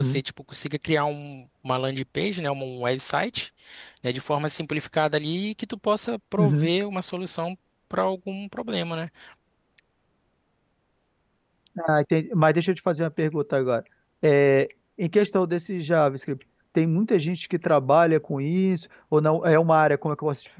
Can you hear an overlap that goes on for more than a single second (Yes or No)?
No